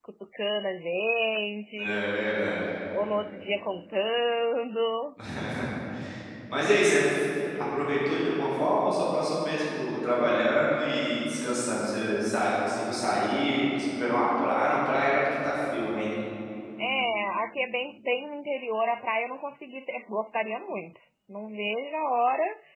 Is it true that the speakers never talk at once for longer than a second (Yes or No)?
Yes